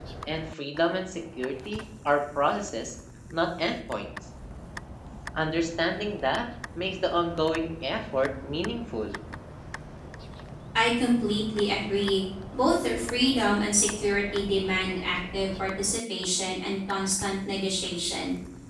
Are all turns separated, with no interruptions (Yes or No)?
Yes